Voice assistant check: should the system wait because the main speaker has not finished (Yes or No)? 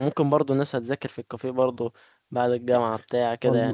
No